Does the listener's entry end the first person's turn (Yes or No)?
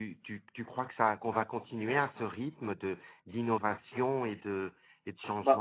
Yes